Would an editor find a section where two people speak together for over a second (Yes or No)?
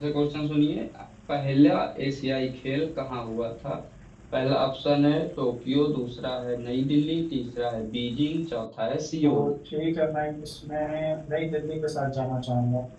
No